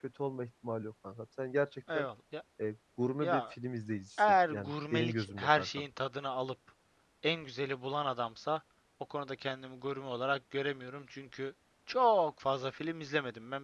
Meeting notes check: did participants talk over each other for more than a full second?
Yes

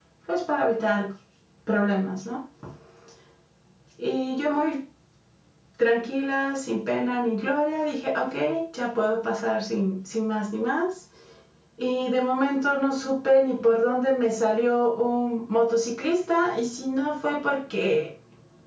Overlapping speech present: No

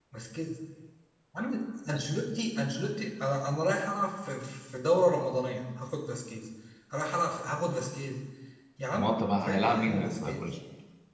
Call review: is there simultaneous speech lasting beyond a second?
Yes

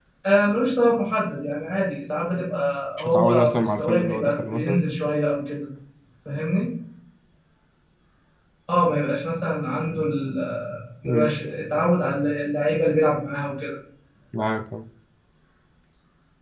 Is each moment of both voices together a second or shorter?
No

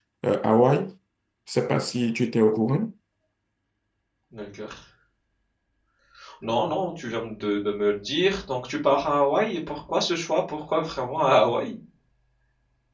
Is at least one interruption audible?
No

